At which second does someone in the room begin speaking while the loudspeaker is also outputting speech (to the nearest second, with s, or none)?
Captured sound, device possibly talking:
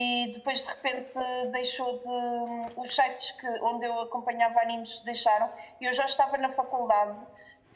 none